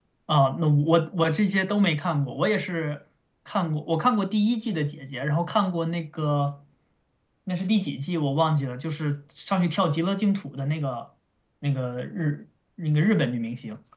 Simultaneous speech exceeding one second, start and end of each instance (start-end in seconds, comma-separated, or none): none